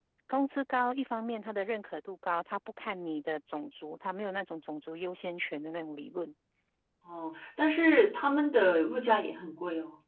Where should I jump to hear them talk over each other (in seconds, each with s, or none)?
none